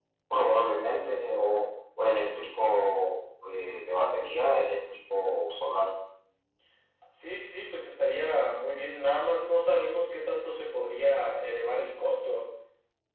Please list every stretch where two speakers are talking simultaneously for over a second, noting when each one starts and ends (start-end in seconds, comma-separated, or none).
none